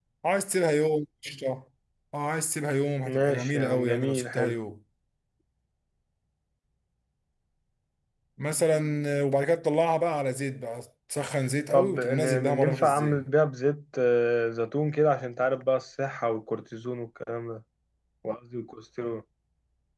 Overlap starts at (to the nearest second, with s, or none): 3 s